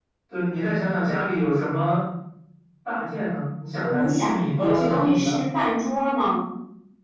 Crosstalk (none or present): present